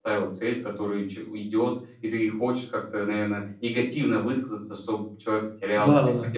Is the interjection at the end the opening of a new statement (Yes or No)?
Yes